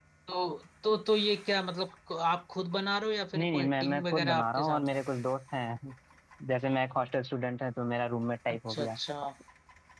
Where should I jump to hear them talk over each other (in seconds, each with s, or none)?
3.4 s